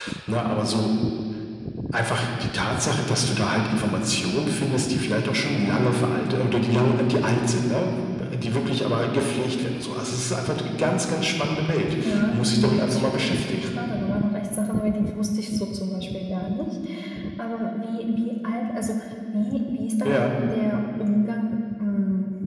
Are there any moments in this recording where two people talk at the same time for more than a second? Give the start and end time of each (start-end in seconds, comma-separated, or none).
12.0-13.7